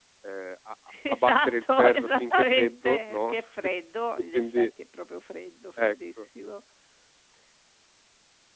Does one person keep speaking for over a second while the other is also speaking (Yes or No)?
Yes